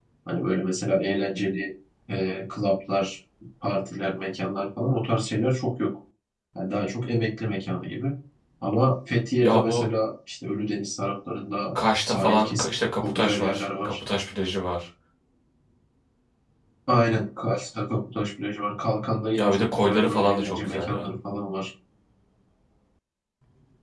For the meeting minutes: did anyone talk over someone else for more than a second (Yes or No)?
Yes